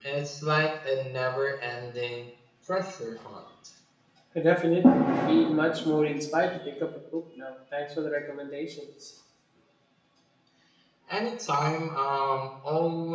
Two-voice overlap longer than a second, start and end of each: none

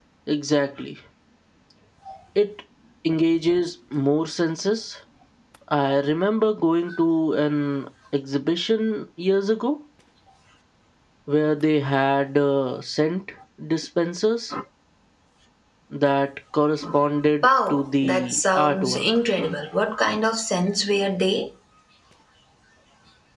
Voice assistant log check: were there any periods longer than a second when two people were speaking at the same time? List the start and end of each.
17.4-19.1

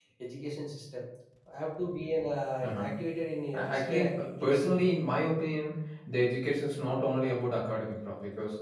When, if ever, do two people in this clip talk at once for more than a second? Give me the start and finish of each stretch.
3.5-4.8

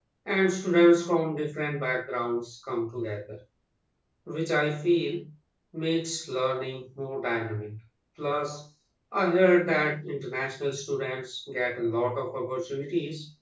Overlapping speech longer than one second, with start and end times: none

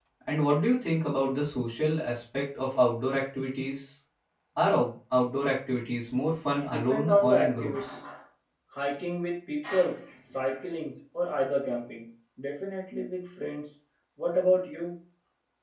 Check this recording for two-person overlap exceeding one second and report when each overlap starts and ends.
6.7-7.9

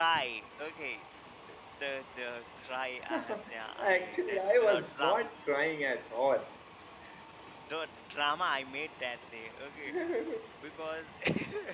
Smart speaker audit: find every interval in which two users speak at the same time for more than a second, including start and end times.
3.8-5.2

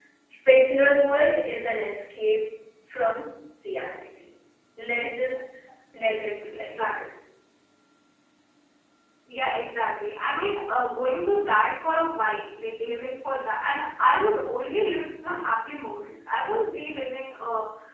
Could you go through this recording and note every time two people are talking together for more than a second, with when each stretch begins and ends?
none

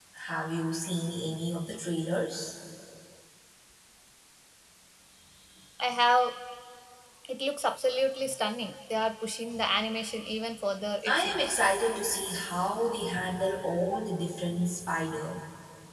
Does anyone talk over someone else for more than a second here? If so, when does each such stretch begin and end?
none

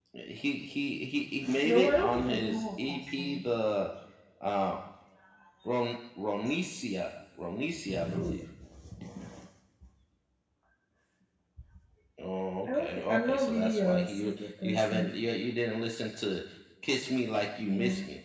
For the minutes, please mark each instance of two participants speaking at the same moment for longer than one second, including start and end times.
1.6-3.4, 12.7-15.1

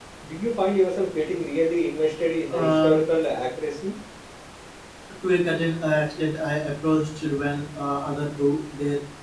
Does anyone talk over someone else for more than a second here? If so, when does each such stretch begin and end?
none

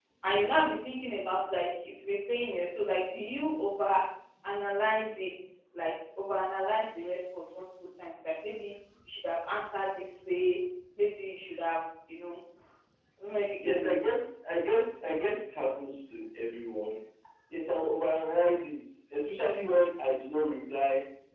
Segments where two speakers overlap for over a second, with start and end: none

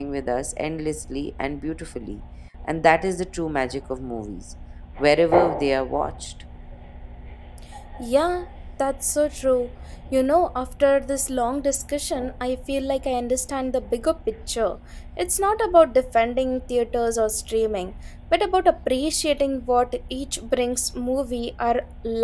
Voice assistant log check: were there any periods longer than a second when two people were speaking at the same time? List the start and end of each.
none

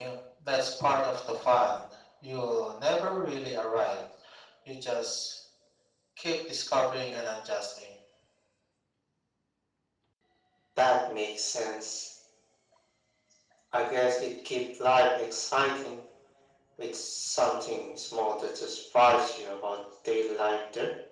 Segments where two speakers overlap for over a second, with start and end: none

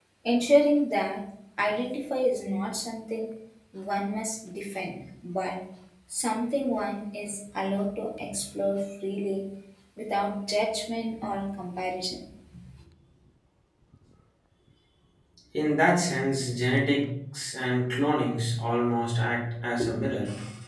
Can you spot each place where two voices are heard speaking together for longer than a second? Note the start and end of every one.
none

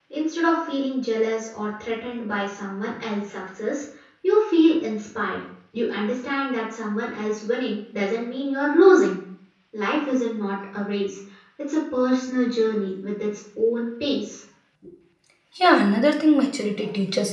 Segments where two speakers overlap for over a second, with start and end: none

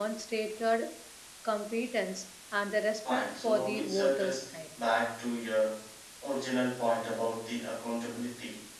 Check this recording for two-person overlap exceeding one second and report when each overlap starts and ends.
3.1-4.8

